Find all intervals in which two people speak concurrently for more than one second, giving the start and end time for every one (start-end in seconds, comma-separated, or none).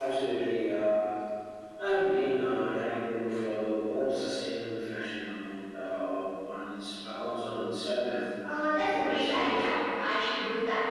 8.4-9.7